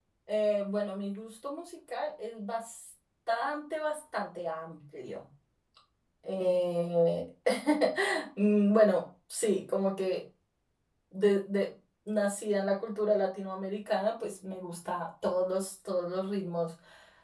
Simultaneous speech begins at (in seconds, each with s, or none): none